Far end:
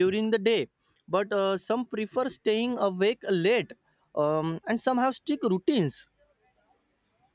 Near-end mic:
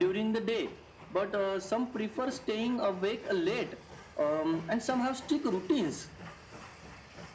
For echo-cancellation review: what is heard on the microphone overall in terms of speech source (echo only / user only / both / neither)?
echo only